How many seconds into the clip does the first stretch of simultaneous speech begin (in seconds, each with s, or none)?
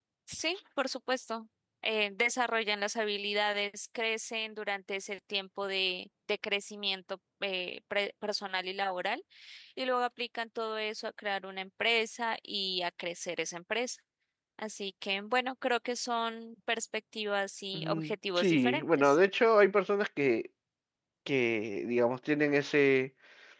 17.7 s